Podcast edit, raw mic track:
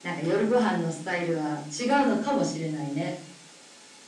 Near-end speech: none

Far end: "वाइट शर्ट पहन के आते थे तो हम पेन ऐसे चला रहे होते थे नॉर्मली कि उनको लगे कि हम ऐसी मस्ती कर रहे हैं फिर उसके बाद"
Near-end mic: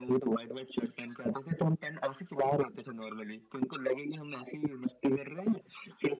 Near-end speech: none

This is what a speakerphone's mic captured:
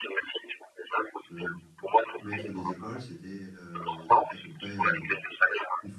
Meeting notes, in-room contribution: present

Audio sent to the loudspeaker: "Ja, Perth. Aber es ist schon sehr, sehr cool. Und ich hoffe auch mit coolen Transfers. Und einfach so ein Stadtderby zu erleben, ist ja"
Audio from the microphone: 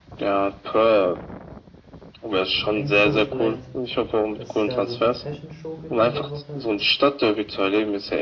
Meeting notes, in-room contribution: present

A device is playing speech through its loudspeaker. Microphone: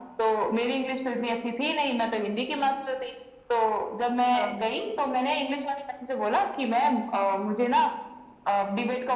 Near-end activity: present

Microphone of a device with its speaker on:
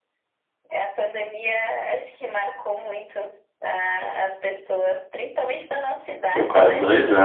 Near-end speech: present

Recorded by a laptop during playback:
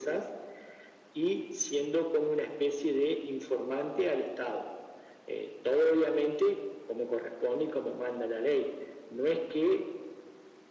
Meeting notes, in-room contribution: none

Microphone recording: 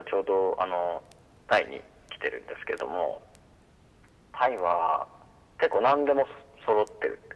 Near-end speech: none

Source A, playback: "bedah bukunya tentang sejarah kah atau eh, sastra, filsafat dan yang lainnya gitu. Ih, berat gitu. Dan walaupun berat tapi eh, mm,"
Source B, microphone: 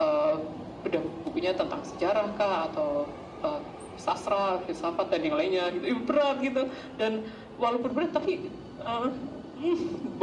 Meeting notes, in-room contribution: none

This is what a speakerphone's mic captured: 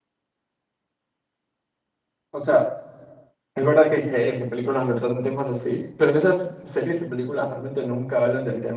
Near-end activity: present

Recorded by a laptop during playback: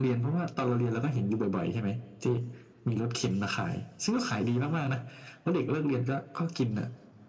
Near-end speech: none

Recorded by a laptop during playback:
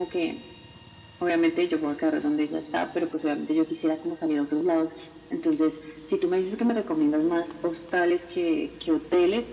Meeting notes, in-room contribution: none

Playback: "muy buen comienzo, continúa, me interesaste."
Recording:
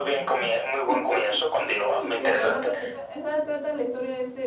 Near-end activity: present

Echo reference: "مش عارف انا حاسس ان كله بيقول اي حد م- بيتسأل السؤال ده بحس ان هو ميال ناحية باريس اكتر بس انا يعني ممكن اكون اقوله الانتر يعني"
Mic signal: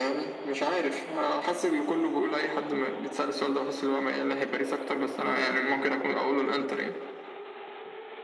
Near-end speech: none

